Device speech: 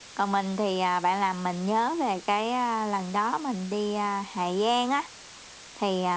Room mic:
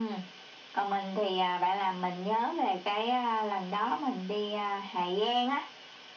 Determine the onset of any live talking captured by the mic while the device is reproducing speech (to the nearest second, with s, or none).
none